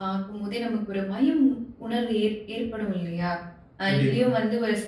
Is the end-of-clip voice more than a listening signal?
No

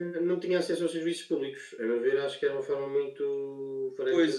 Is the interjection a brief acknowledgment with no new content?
No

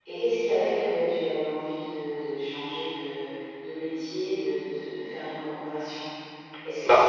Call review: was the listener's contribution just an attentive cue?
Yes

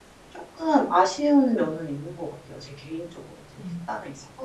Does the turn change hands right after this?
Yes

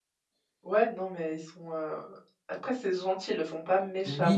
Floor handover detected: Yes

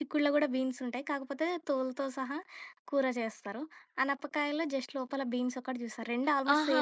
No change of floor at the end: No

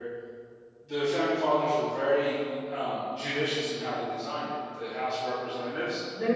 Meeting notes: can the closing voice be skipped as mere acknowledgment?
Yes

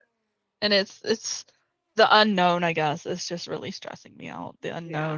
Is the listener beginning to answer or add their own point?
No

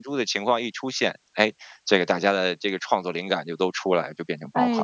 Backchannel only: No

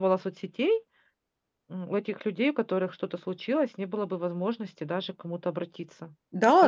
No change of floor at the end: No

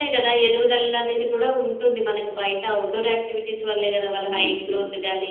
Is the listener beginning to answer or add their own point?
Yes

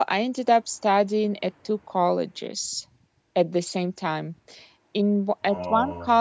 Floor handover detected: No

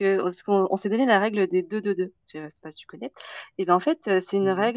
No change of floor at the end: Yes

